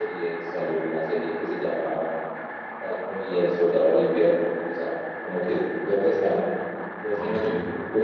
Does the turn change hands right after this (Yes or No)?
No